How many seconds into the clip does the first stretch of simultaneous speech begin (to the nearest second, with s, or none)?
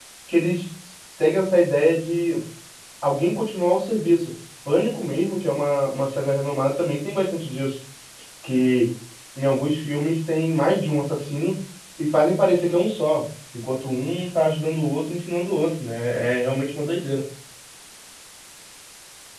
none